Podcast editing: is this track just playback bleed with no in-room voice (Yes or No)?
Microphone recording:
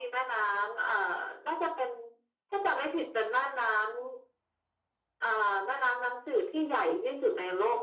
Yes